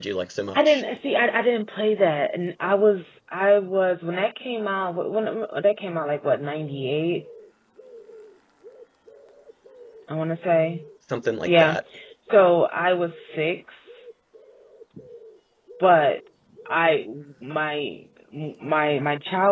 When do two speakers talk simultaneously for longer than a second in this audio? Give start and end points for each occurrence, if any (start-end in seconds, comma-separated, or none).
none